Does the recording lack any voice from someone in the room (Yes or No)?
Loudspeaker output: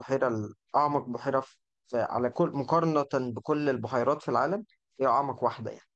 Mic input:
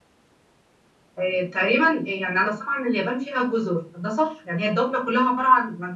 No